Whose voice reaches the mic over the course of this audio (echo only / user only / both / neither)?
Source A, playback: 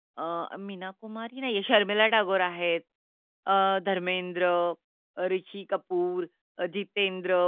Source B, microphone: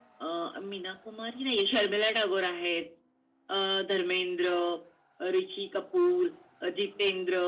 echo only